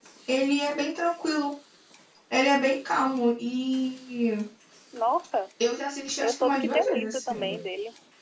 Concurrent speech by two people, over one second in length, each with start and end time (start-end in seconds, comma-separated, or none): 6.2-7.6